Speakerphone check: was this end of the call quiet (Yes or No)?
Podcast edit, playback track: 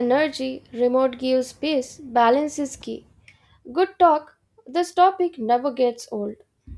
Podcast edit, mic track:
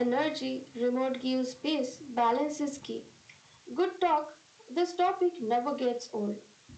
Yes